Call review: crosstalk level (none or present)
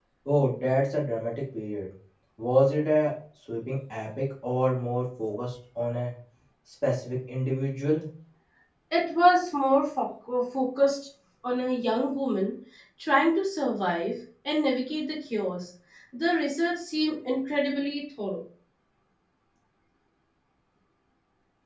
none